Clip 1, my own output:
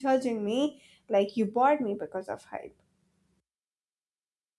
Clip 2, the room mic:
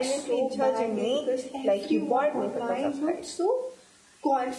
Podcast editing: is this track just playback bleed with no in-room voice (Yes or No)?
No